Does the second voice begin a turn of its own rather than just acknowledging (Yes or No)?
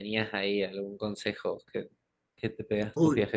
Yes